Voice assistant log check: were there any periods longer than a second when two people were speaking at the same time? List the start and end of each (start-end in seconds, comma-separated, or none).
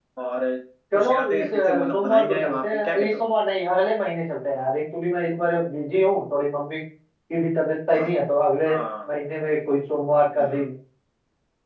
0.9-3.2